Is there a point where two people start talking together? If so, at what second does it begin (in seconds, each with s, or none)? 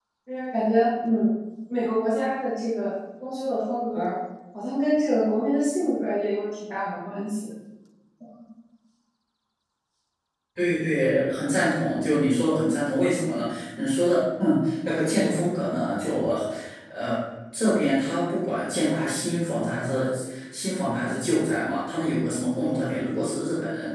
none